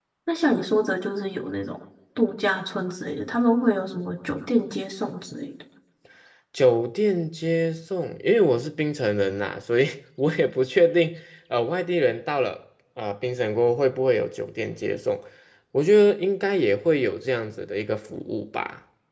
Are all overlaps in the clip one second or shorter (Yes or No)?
Yes